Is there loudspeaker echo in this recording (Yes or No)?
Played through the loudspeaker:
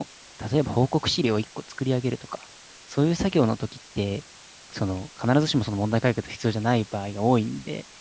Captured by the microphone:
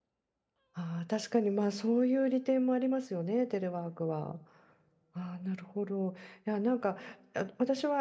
No